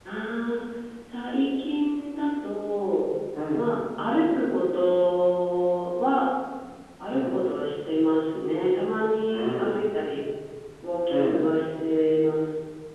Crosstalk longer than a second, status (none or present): none